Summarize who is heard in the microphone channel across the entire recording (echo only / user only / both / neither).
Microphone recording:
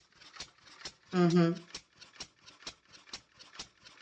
user only